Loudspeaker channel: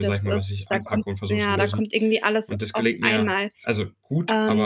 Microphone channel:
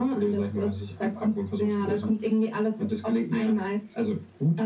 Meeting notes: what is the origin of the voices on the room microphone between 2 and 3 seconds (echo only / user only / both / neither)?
echo only